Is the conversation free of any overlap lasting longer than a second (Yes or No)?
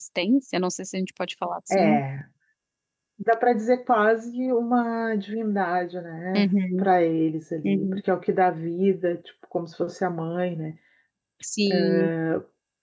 Yes